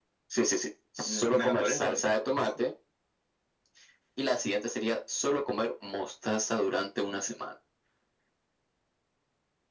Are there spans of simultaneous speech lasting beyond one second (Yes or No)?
Yes